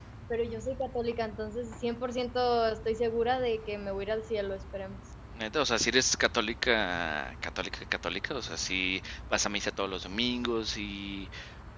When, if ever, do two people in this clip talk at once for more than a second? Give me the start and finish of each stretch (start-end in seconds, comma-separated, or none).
none